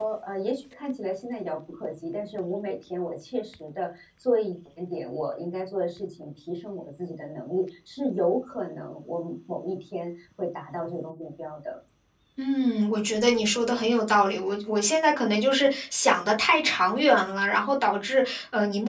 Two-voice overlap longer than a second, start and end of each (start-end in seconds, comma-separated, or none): none